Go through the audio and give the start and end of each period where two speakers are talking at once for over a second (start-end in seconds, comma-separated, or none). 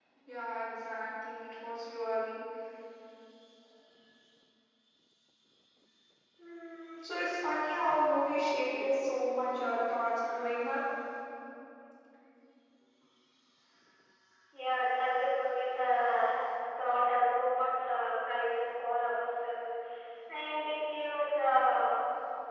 none